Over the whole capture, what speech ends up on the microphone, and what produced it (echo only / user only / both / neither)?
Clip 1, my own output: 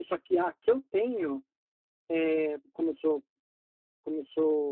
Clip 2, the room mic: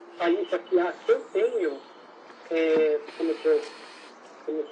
echo only